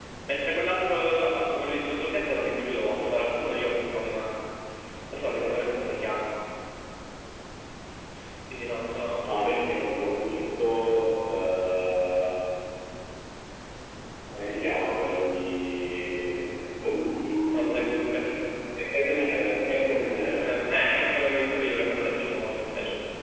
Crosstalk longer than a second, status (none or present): none